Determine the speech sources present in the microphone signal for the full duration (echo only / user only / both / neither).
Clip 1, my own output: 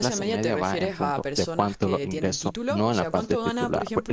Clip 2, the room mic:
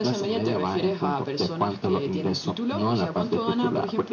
echo only